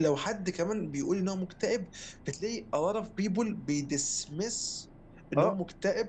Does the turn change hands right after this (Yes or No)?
No